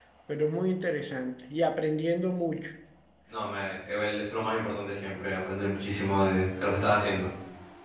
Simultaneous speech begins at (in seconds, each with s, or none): none